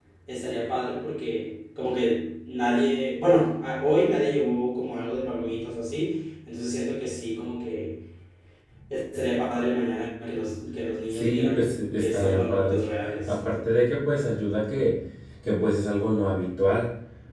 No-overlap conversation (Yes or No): No